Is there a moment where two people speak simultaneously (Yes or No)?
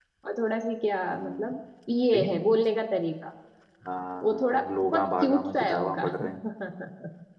Yes